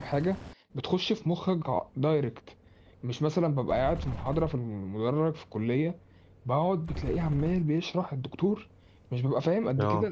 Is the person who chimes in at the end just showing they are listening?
Yes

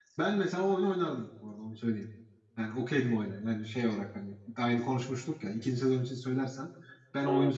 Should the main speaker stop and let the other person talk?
No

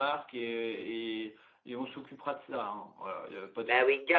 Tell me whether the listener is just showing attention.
No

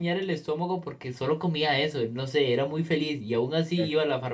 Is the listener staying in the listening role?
Yes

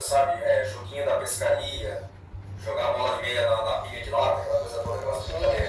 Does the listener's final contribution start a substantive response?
Yes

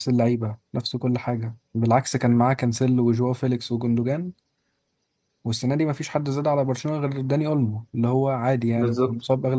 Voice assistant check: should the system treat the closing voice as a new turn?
No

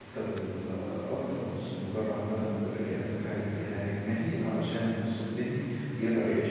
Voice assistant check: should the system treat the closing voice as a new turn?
No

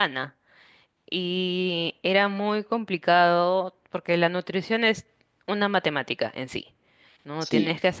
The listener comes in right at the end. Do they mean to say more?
No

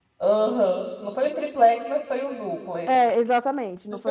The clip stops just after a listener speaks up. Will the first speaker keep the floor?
No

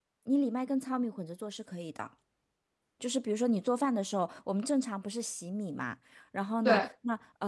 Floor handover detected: No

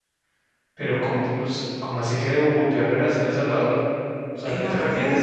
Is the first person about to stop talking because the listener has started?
Yes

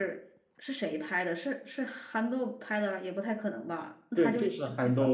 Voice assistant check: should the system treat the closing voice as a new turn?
Yes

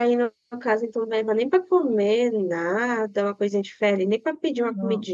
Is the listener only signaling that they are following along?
No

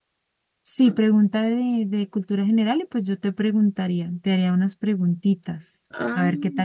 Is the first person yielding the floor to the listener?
Yes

